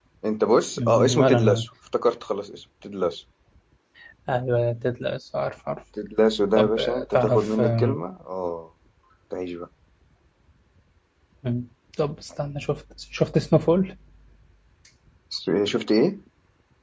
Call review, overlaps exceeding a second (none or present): present